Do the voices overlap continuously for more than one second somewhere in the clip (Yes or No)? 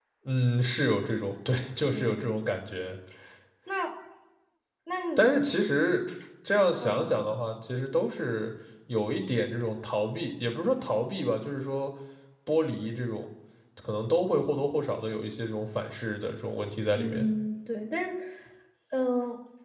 No